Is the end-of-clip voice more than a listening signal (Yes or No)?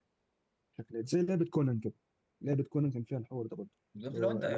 Yes